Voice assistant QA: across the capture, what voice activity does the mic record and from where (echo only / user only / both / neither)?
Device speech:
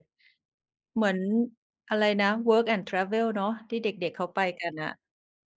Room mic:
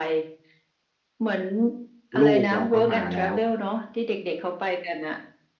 both